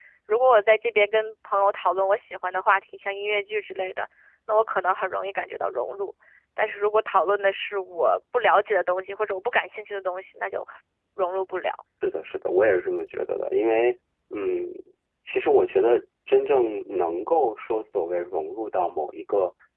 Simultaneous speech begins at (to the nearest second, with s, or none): none